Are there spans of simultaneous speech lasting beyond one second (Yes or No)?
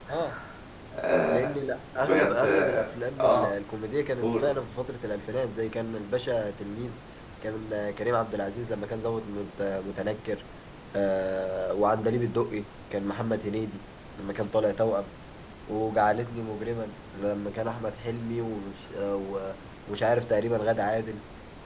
Yes